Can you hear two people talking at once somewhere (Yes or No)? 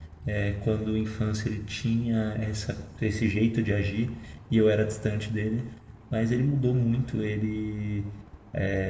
No